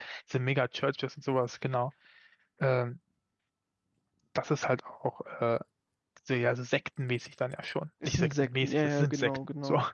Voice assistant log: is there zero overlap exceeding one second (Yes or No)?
No